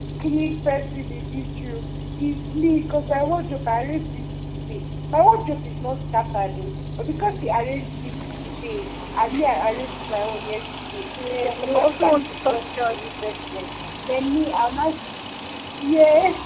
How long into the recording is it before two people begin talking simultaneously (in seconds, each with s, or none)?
11.2 s